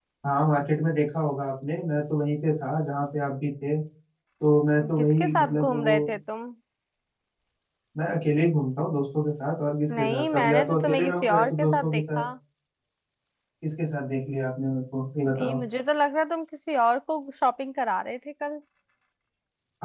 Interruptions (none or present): present